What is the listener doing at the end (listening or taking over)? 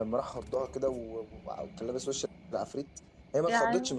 listening